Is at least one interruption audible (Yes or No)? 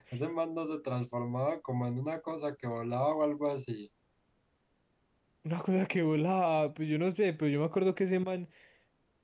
No